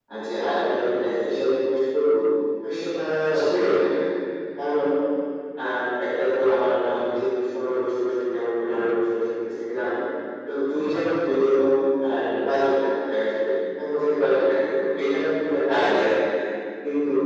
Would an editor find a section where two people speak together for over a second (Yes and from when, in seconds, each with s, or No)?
No